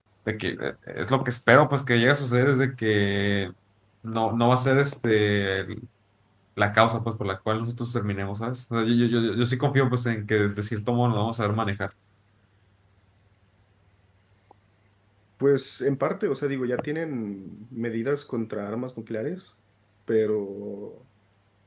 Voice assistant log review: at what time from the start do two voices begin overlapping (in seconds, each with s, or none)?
none